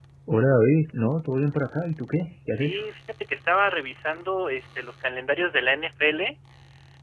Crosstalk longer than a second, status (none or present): none